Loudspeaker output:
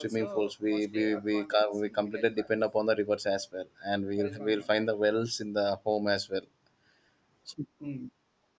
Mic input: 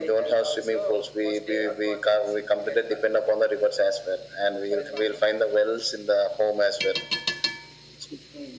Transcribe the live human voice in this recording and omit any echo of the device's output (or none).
none